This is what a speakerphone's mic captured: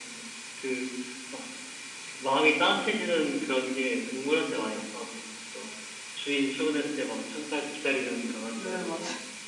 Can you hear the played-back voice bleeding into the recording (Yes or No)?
Yes